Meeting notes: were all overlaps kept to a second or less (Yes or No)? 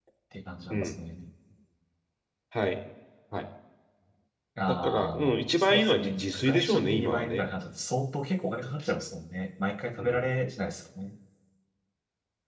No